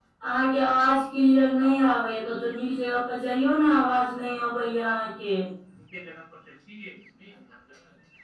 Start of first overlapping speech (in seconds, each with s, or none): none